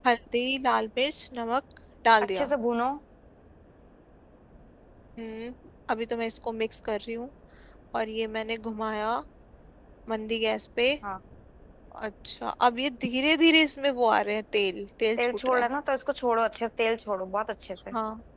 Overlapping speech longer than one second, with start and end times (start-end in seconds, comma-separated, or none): none